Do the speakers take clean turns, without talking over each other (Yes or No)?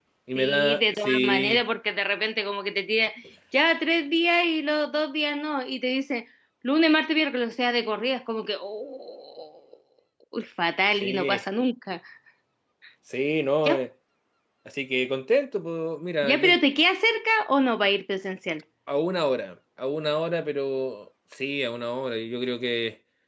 No